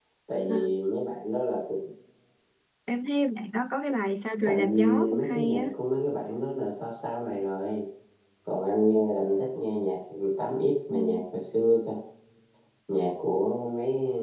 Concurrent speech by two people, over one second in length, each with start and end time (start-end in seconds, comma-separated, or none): 4.5-5.7